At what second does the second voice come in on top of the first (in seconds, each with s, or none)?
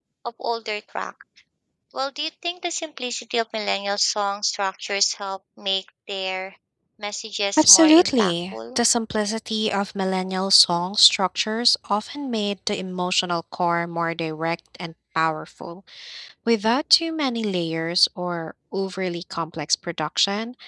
7.6 s